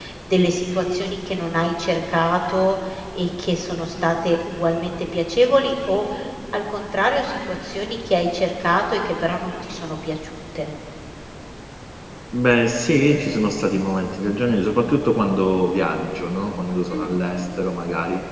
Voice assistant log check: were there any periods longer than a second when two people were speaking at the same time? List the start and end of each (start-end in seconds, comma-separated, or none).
none